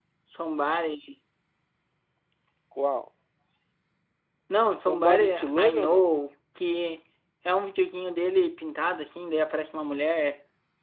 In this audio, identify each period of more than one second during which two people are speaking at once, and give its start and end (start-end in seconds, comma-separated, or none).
4.8-6.0